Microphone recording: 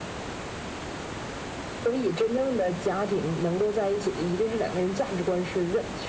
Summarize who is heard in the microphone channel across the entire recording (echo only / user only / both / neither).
echo only